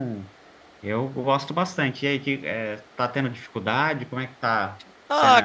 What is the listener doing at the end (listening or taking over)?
taking over